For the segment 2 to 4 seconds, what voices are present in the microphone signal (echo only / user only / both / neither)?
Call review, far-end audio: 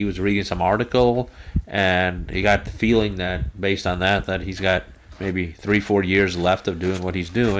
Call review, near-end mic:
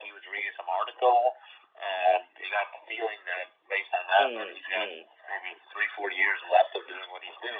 echo only